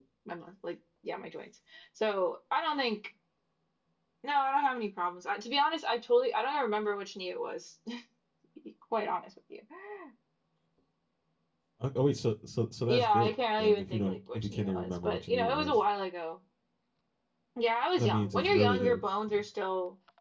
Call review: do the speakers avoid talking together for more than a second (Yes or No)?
No